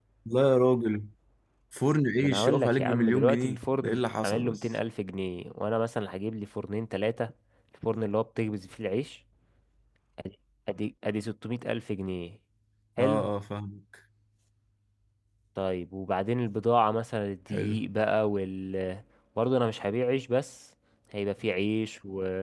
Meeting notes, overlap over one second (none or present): present